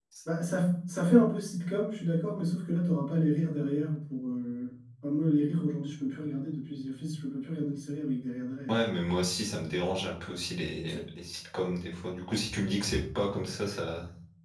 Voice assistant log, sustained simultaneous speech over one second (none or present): none